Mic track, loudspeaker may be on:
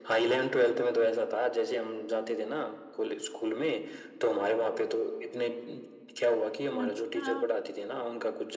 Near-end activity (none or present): present